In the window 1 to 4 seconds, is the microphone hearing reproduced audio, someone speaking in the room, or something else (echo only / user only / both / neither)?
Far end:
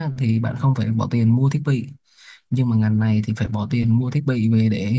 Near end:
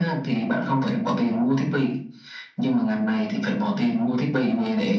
echo only